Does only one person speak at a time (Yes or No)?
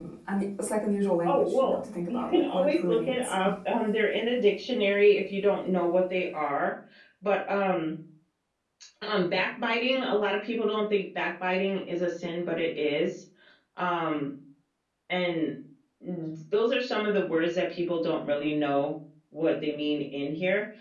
No